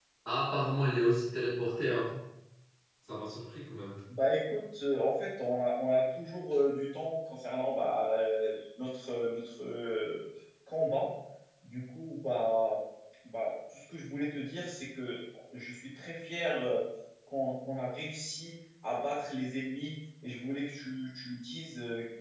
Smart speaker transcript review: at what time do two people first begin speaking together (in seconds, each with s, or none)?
none